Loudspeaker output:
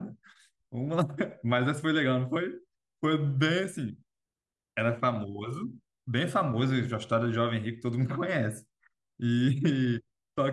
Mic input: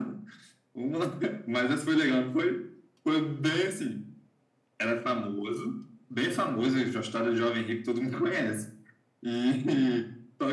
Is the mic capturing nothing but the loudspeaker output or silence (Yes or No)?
Yes